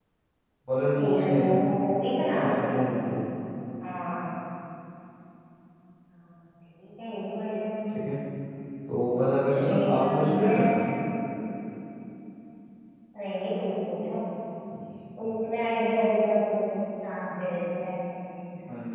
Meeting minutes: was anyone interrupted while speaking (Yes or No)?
Yes